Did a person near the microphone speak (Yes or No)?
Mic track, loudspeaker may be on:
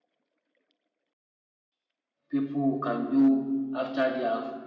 Yes